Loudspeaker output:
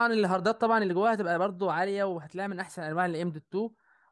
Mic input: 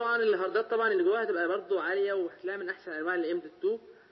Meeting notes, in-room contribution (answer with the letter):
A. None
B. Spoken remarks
A